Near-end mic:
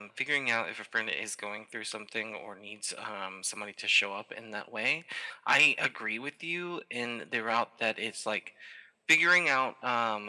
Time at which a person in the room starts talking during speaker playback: none

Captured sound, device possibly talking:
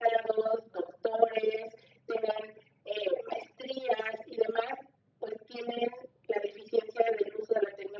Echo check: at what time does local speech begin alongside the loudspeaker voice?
none

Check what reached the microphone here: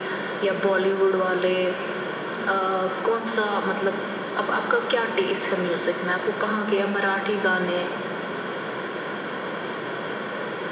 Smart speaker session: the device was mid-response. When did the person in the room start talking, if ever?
none

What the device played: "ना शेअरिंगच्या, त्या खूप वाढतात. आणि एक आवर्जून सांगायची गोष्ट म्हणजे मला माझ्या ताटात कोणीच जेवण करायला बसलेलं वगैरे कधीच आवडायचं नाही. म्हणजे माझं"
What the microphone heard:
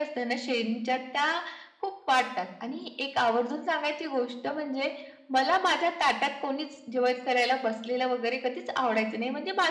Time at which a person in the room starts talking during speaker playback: none

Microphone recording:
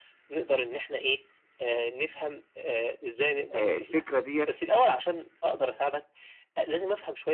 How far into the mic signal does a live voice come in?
4 s

